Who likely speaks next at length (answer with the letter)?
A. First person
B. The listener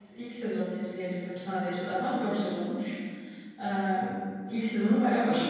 B